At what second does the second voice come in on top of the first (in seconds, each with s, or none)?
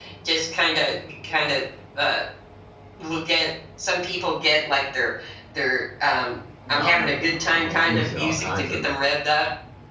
6.7 s